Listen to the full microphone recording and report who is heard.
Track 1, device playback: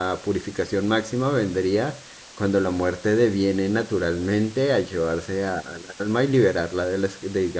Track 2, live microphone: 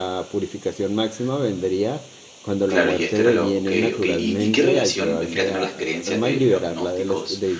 both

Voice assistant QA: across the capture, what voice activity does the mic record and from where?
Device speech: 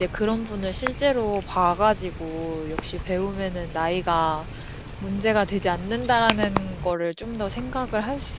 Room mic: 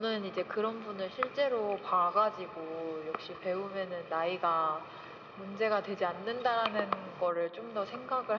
echo only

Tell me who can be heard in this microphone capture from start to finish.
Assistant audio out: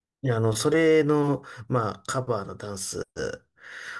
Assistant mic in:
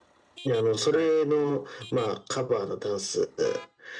both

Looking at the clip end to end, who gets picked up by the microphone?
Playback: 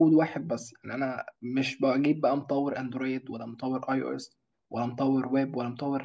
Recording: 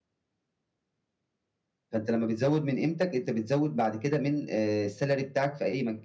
user only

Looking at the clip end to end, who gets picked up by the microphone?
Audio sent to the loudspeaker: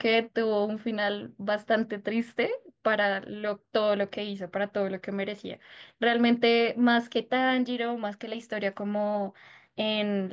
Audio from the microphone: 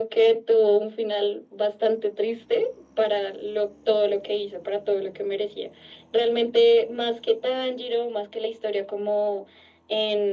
echo only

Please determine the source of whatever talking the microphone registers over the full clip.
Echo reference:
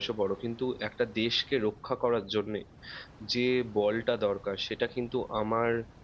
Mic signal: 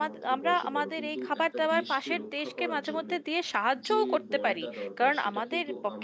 both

